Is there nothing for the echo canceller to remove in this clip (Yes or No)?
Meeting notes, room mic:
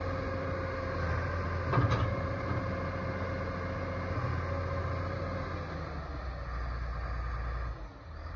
Yes